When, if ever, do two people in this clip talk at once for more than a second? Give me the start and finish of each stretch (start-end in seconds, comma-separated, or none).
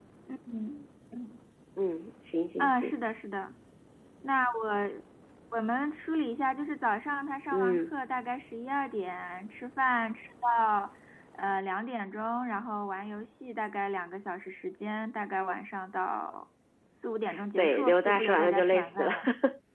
17.6-19.1